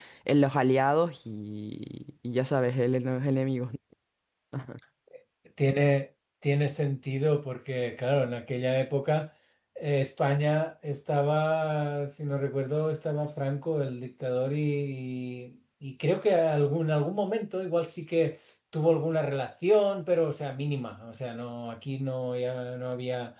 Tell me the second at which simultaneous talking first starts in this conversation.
none

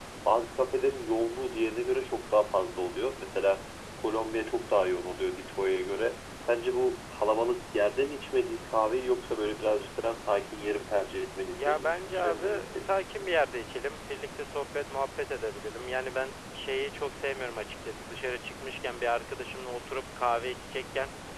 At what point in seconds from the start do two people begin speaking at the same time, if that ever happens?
12 s

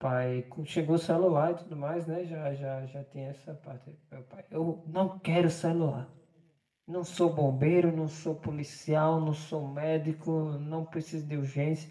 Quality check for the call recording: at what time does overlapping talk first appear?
none

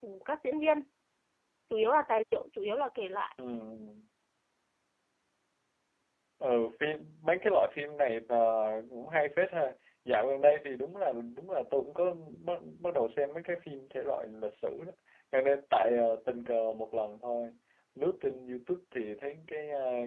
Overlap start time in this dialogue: none

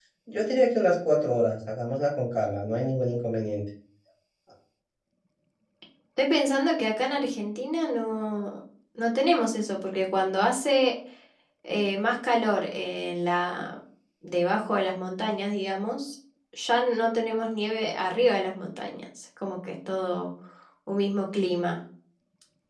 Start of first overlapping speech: none

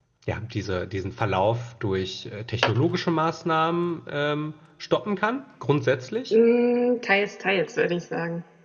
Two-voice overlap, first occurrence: none

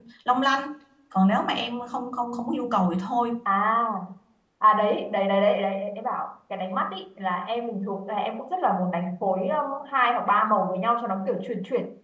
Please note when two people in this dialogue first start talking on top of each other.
none

